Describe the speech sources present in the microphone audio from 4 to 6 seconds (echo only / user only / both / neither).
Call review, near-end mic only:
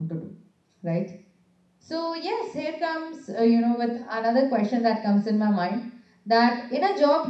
user only